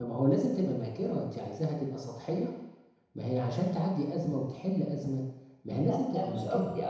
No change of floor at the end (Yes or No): No